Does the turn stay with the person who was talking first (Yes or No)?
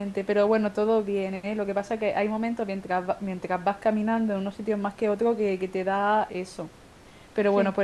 Yes